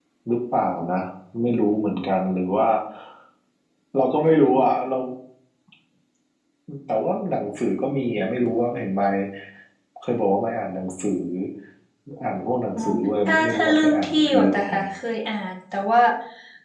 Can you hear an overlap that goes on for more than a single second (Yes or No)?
Yes